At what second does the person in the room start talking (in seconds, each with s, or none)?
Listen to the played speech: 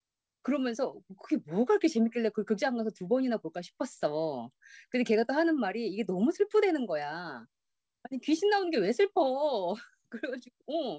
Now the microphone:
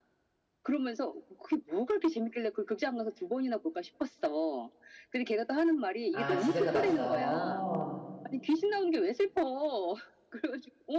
6.1 s